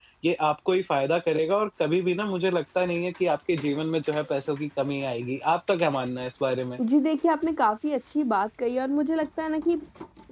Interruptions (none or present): none